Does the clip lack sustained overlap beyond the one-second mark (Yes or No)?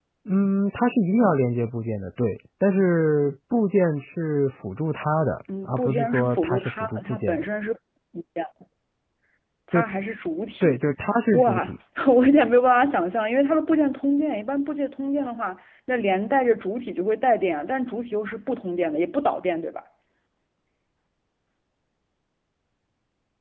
No